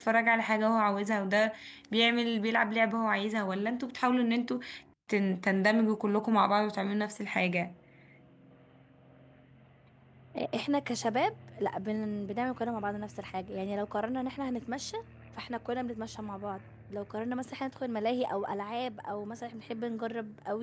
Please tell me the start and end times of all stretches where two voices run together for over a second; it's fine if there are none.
none

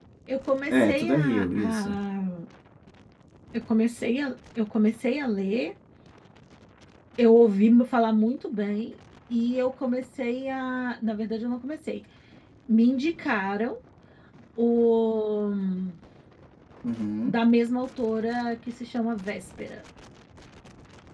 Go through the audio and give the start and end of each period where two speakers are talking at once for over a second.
0.7-2.0

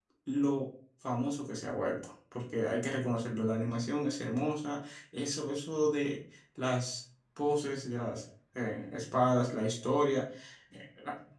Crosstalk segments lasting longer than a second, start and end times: none

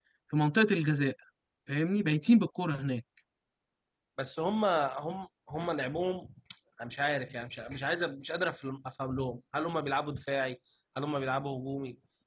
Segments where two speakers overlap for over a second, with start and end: none

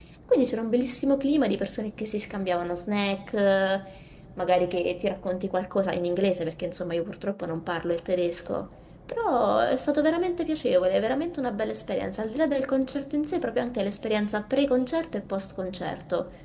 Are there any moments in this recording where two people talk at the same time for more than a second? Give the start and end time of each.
none

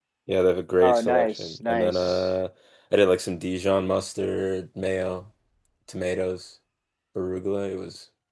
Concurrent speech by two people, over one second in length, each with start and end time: 0.8-2.3

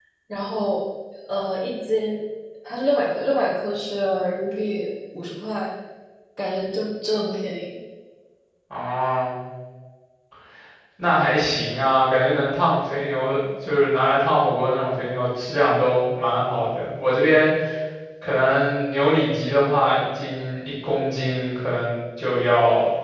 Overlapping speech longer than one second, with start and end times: none

